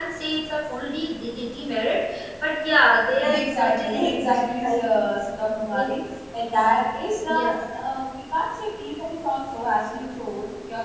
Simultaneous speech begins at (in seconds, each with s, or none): 3.3 s